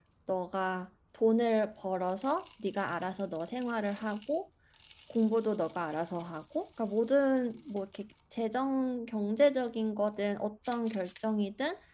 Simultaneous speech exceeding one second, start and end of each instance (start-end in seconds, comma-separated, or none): none